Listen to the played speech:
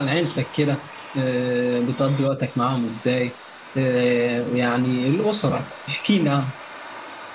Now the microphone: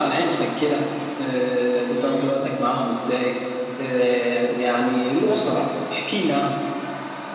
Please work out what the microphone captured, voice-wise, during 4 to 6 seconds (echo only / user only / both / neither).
echo only